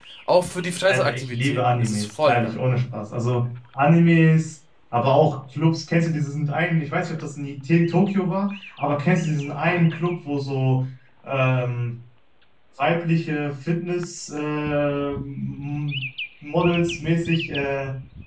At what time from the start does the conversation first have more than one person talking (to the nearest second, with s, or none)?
1 s